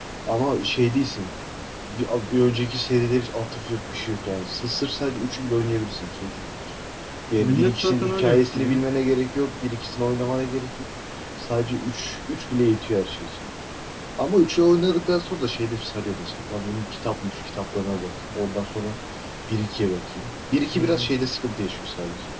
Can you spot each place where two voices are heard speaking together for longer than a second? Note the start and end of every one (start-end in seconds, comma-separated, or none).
7.4-8.8